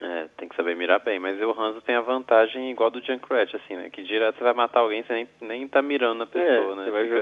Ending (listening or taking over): taking over